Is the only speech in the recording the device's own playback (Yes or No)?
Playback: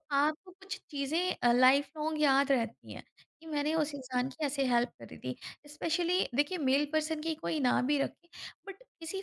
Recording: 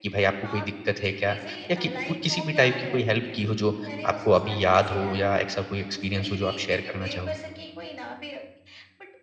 No